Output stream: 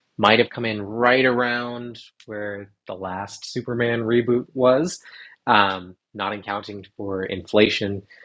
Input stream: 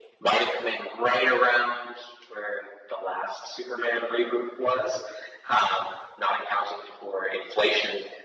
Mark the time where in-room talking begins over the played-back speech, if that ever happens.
none

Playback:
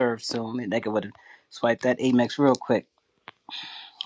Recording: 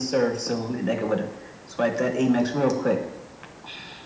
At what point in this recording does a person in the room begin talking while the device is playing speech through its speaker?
none

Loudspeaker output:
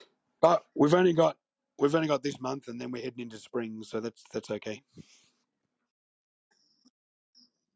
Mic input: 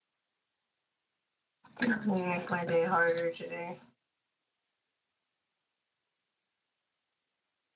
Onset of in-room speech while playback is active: 1.8 s

